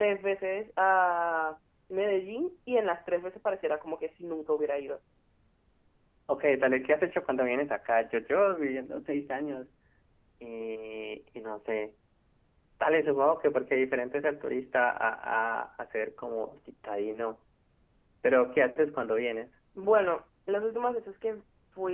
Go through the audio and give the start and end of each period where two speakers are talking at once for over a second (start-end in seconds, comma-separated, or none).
none